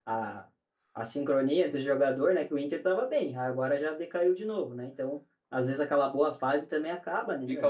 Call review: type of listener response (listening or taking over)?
taking over